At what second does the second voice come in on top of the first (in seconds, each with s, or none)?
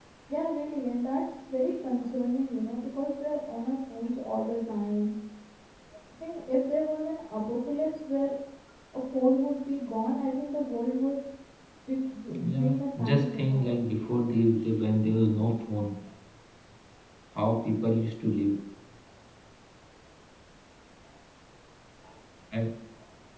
12.4 s